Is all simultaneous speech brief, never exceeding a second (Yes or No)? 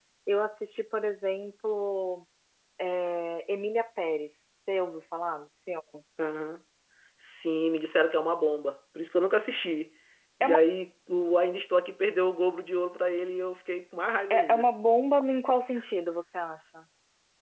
Yes